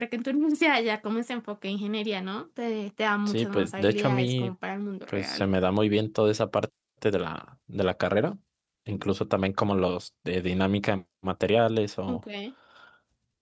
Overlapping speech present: Yes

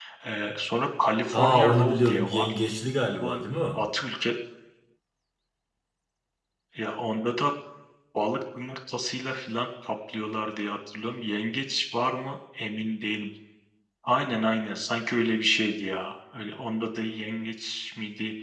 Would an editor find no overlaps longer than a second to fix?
No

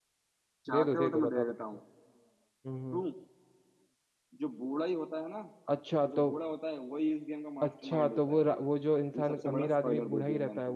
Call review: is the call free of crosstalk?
No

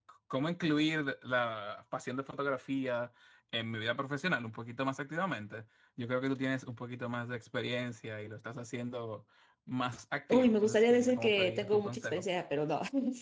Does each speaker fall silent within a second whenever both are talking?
No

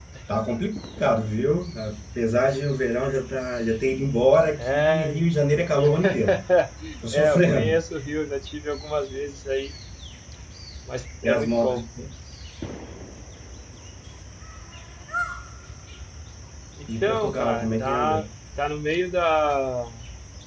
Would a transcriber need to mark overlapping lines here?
Yes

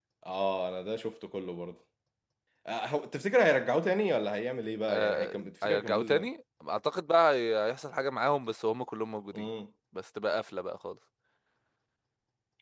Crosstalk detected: Yes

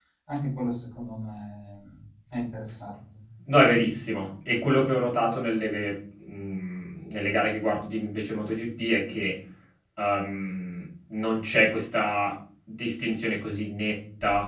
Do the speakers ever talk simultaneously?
No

